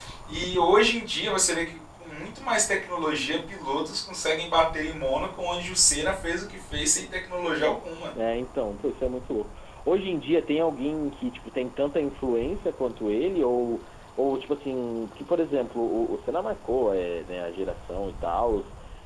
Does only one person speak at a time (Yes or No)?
Yes